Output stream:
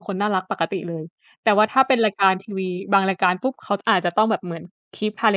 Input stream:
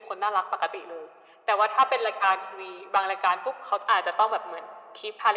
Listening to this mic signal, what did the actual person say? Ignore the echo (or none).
none